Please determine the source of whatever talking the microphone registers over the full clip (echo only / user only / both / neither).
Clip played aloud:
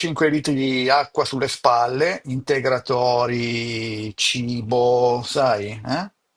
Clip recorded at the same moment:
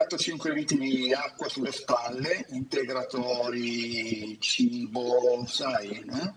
echo only